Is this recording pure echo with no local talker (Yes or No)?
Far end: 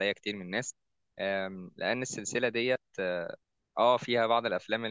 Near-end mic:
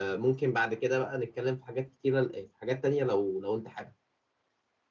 No